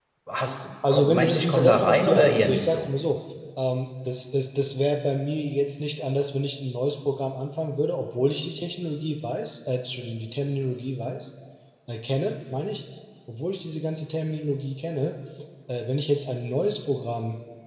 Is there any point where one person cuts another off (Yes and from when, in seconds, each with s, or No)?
Yes, from 0.9 s